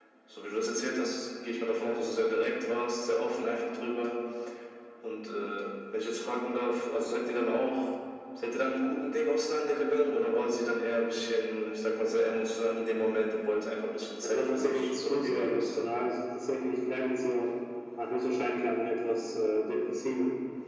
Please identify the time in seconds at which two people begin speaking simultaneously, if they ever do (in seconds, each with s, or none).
14.2 s